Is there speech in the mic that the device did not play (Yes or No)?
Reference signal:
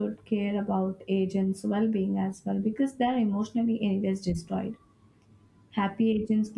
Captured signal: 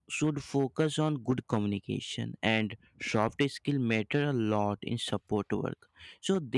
Yes